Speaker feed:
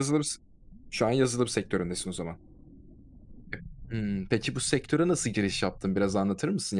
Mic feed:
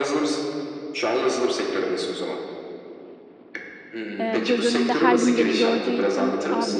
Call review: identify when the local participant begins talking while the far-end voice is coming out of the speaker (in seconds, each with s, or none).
4.2 s